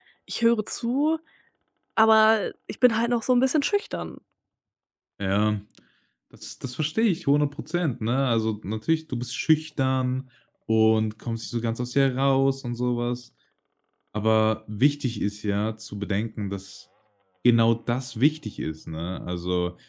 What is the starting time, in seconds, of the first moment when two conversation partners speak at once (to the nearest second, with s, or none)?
none